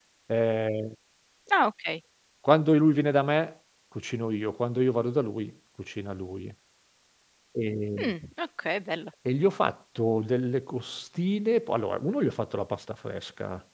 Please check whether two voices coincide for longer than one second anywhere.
No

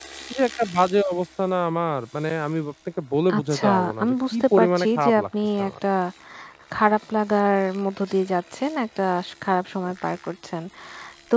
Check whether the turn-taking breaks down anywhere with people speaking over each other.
Yes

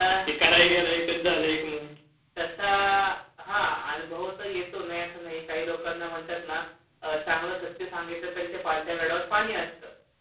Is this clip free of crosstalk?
Yes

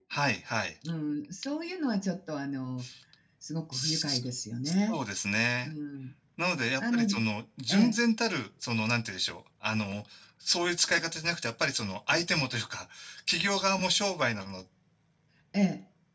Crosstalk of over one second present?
No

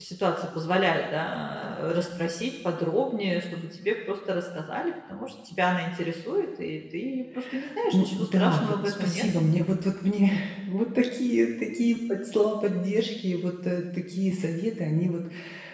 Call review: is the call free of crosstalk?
No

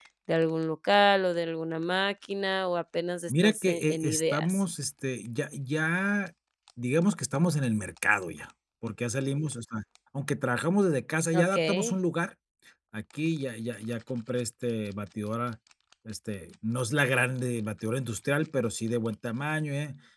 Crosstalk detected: Yes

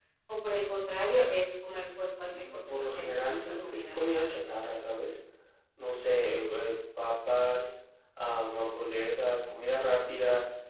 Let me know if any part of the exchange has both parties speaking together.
Yes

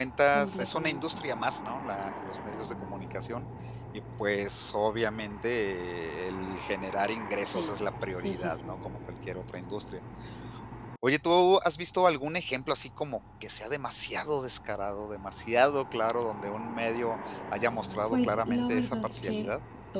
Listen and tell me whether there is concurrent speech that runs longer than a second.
Yes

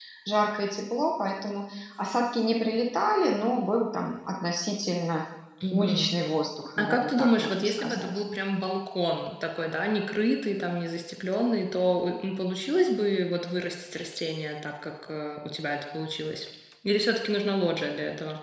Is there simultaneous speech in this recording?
Yes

